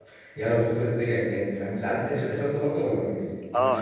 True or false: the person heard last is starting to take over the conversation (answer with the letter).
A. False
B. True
B